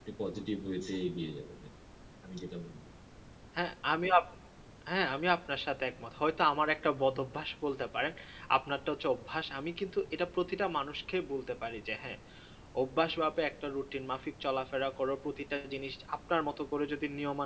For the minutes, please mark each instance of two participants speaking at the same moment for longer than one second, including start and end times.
none

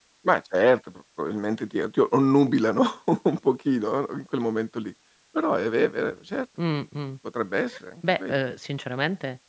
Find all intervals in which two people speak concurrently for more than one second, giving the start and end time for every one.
none

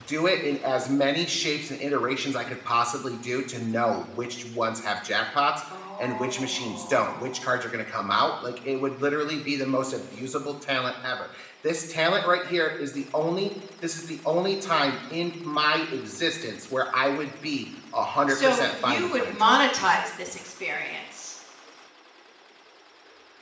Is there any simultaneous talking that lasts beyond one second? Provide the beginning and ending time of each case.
6.0-7.4, 18.3-19.6

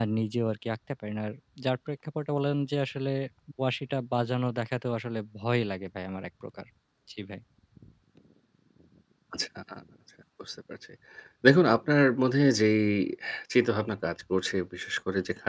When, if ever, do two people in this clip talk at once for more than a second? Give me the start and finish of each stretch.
none

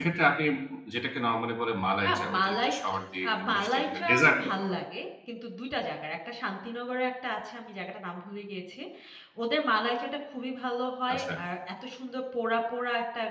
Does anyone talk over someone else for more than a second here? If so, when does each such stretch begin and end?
2.1-4.8

